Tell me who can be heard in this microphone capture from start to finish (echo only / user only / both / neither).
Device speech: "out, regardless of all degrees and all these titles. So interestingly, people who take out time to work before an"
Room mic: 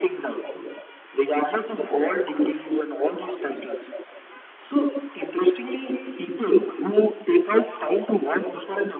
echo only